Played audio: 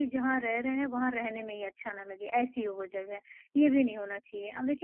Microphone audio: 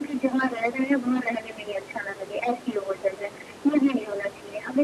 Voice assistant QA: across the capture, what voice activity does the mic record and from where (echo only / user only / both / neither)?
echo only